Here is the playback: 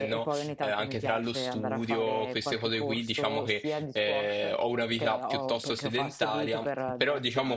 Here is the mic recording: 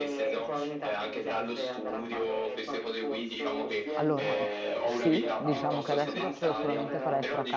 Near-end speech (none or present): present